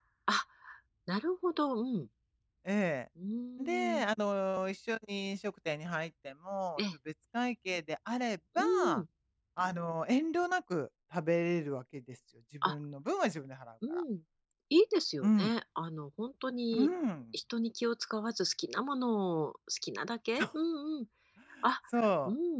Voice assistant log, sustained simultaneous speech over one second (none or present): none